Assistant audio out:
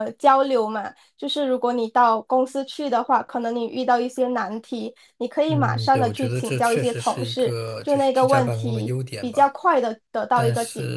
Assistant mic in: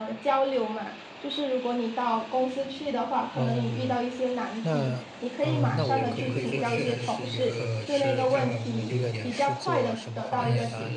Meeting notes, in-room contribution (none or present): present